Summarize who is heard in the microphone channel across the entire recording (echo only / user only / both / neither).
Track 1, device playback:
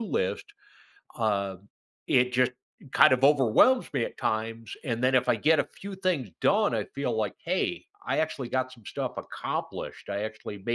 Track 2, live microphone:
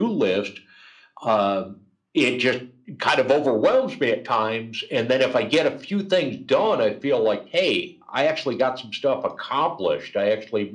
echo only